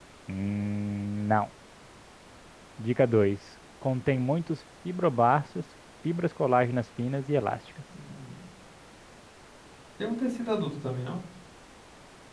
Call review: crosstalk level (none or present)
none